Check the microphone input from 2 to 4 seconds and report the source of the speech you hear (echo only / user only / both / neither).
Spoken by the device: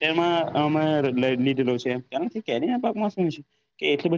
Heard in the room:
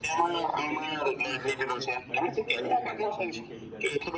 both